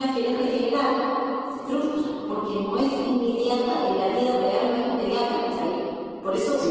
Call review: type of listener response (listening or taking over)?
taking over